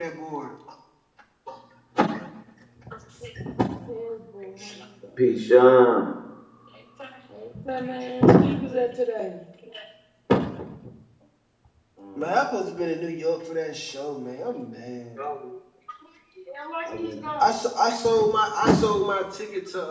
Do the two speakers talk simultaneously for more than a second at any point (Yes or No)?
No